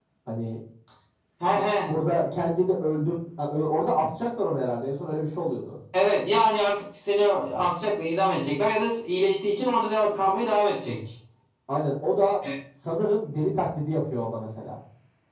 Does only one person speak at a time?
Yes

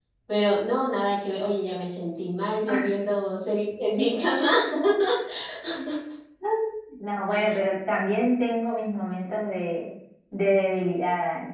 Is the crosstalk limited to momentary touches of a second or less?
Yes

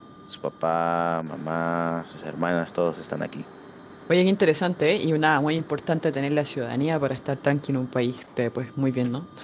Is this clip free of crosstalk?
Yes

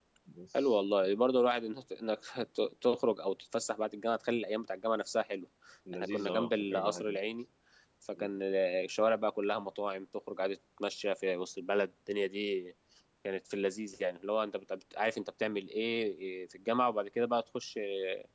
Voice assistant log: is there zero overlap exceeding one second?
No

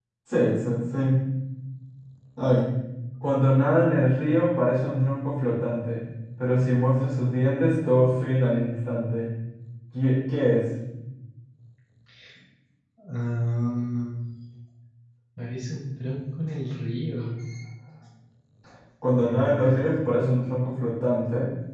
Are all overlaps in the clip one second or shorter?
Yes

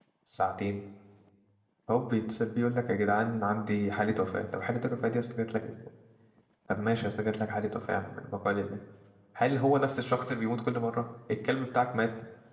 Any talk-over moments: No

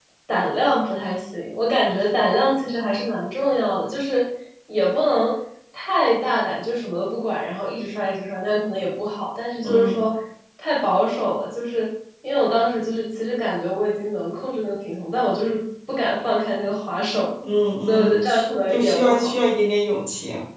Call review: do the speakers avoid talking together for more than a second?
No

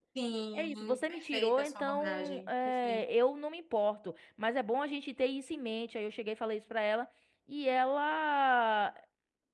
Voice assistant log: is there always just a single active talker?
No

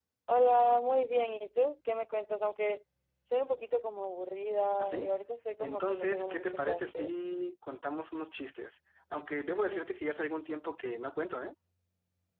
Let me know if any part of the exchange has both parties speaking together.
Yes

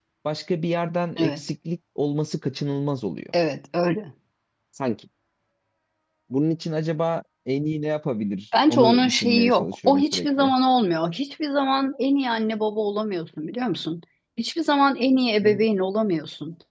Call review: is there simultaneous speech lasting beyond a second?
Yes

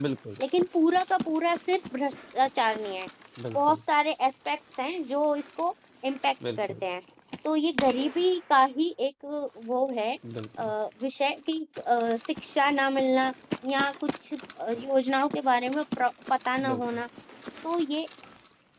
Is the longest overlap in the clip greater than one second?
No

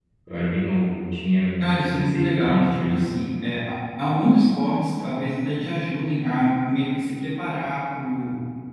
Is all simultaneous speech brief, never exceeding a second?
No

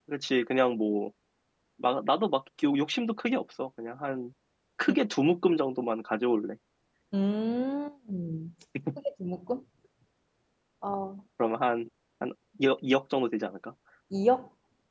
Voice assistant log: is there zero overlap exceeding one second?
Yes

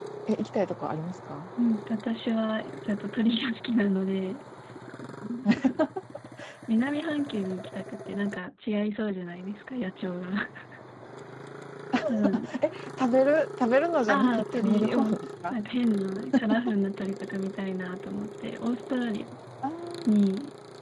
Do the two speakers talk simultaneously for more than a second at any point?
Yes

